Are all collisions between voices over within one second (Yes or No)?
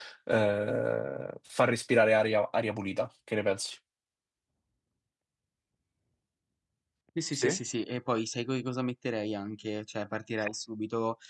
Yes